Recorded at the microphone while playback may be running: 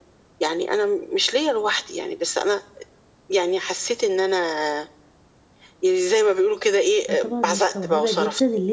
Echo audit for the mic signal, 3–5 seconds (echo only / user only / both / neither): echo only